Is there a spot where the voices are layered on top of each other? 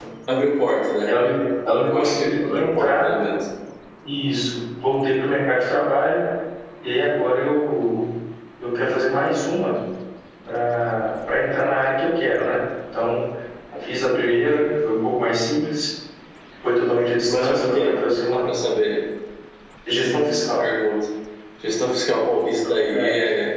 Yes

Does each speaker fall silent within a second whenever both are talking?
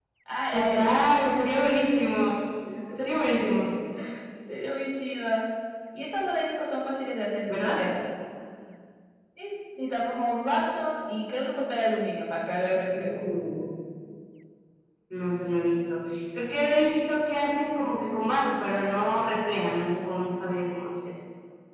Yes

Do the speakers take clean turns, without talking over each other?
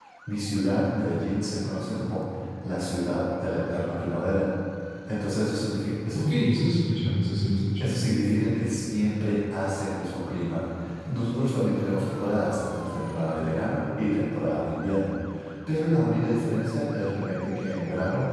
Yes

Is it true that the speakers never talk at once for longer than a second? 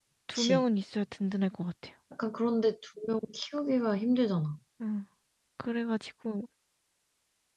Yes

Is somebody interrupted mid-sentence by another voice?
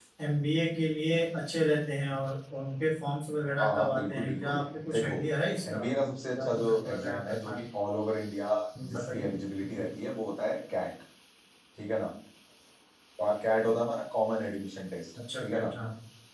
Yes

